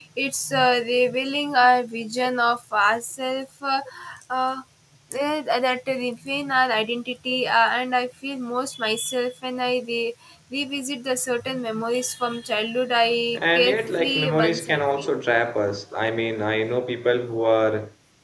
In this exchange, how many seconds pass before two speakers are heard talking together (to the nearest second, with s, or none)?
14 s